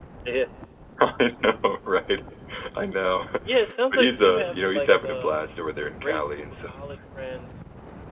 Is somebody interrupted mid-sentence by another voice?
Yes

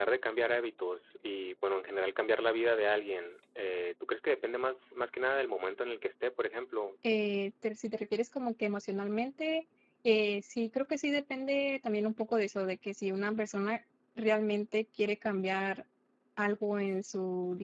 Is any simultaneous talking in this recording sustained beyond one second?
No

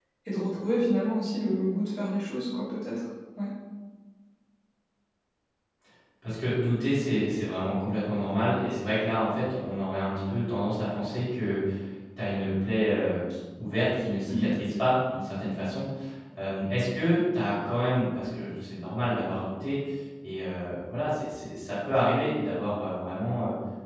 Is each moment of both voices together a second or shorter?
Yes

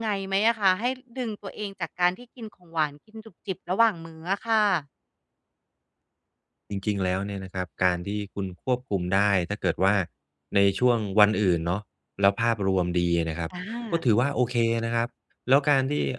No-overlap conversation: Yes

